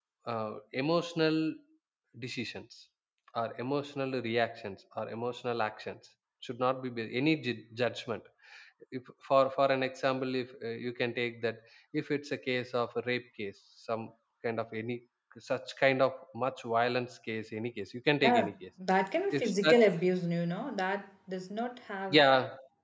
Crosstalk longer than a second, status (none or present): none